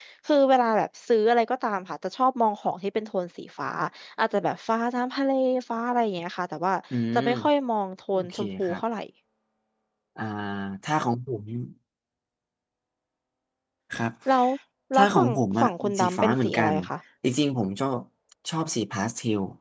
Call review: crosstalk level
present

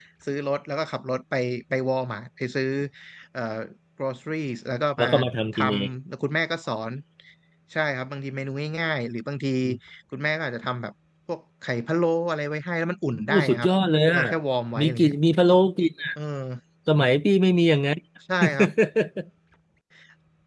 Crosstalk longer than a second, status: none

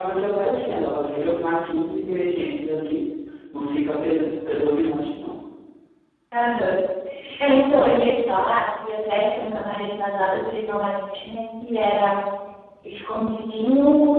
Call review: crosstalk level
none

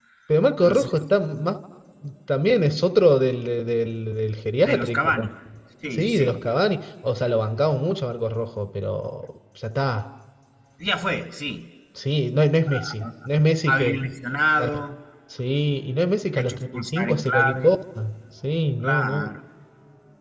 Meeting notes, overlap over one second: present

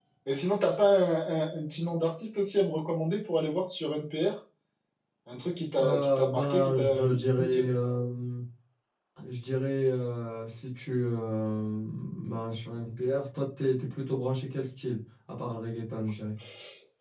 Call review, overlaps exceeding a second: present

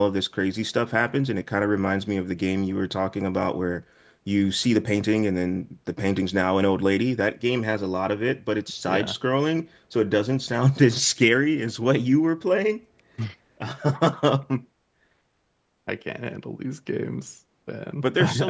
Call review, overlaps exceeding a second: none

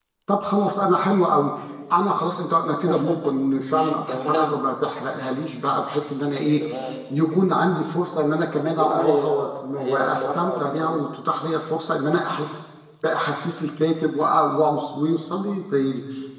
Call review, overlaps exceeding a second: present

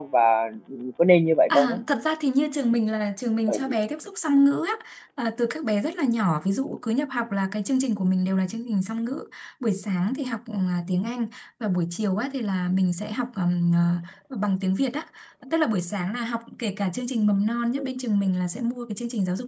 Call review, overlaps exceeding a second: none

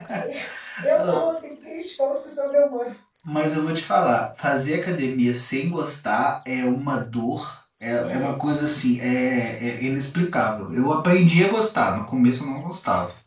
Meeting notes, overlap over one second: none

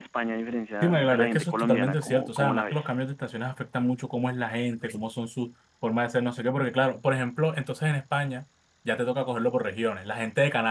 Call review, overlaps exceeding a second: present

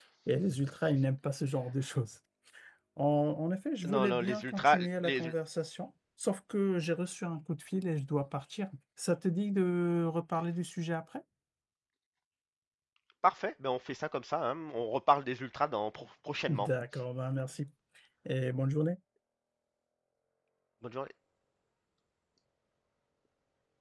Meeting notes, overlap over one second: present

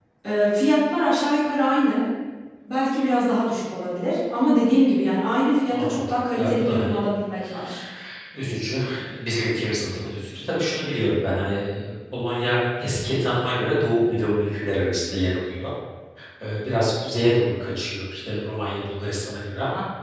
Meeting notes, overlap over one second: present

